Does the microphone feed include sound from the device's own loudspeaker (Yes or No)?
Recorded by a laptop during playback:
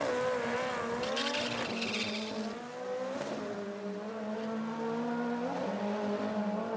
No